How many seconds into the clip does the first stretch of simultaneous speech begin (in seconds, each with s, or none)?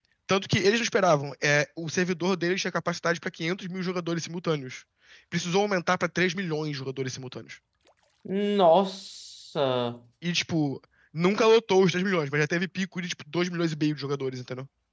none